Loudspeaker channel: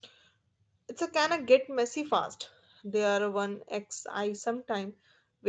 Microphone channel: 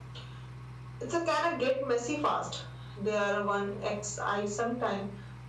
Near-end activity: none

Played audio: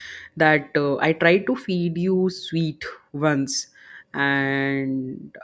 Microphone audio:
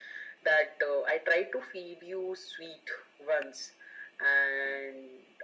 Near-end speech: none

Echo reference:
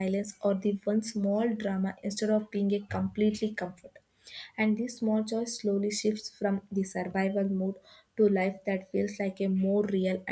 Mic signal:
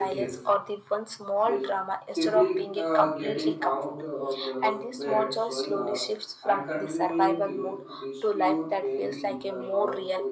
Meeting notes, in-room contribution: present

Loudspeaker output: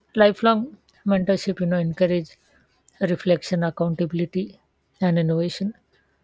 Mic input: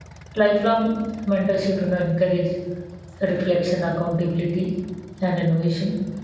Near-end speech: none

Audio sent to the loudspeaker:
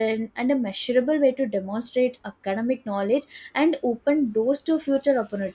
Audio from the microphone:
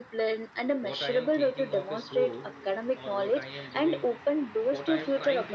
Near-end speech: present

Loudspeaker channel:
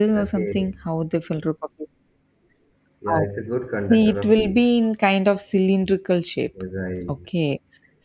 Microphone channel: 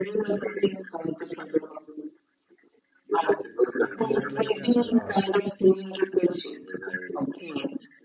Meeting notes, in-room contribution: present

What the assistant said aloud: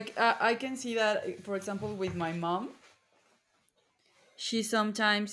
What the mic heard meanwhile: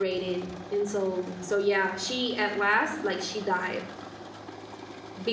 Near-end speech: present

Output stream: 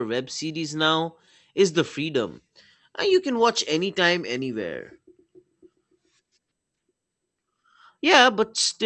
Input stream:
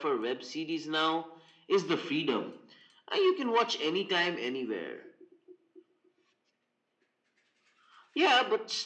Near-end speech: none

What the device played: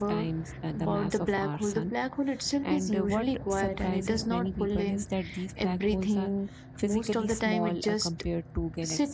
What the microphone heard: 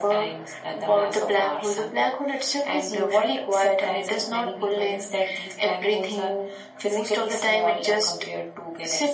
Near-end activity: none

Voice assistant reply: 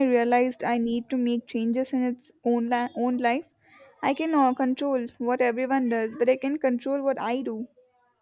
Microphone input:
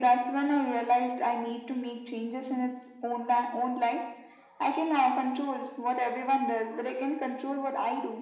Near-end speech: none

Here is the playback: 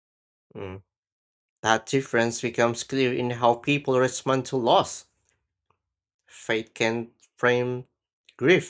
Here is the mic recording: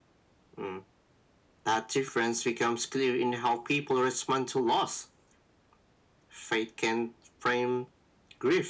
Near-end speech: none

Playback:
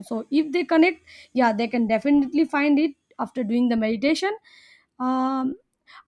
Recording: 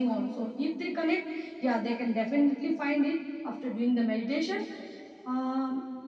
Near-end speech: none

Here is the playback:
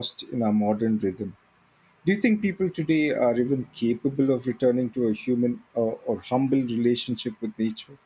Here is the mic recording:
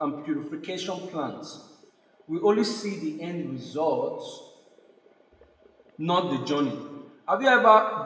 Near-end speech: present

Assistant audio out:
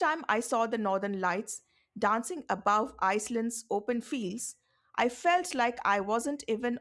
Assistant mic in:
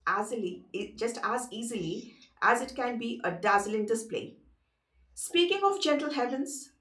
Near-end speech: present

